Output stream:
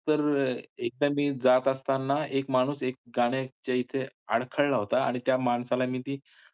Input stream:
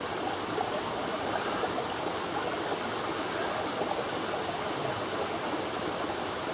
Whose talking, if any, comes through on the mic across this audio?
neither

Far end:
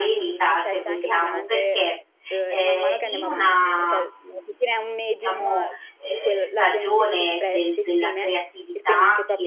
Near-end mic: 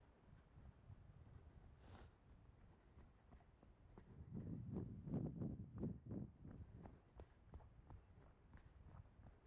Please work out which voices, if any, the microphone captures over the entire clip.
neither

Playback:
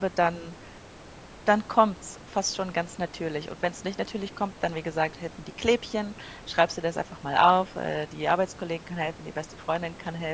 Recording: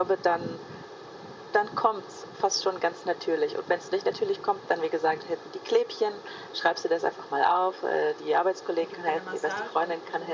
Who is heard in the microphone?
both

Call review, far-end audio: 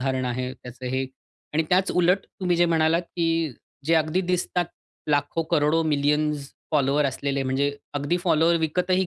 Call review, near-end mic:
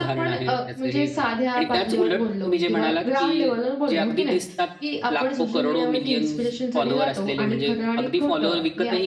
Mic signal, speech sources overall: both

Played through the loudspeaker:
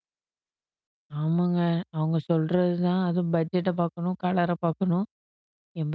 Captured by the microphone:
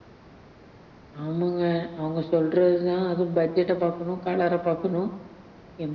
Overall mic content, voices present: echo only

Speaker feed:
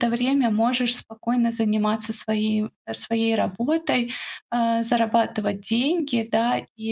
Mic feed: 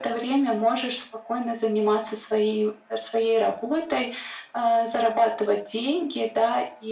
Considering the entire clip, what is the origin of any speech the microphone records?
echo only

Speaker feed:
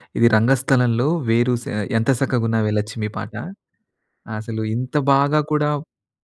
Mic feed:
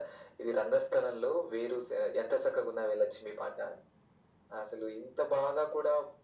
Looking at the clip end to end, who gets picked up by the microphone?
echo only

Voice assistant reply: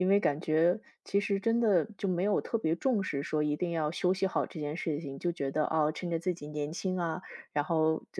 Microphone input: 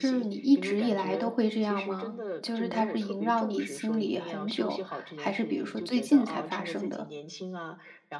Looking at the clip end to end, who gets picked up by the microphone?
both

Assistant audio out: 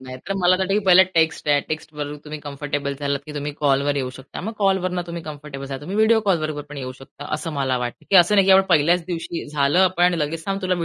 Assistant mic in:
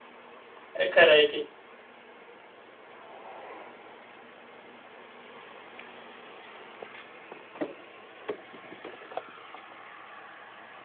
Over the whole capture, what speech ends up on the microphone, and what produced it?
user only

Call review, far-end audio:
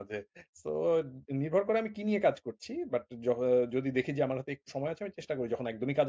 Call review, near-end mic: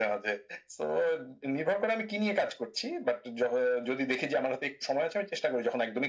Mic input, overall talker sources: echo only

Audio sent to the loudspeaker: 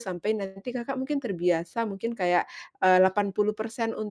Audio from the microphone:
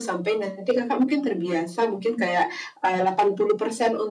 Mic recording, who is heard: echo only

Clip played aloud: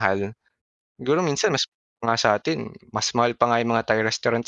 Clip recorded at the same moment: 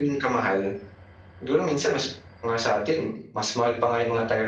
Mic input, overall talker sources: echo only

